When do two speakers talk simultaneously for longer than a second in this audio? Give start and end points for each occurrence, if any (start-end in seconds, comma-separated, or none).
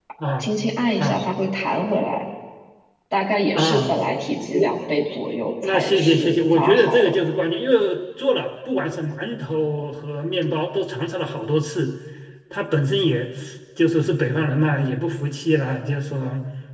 5.6-7.1